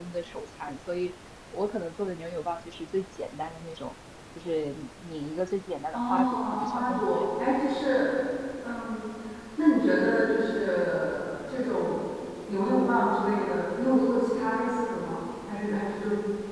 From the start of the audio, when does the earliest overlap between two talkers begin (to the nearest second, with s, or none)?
6 s